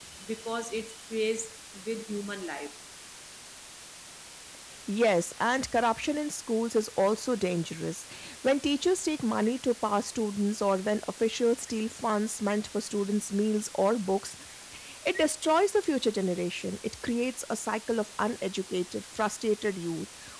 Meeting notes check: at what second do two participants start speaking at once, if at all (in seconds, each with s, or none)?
none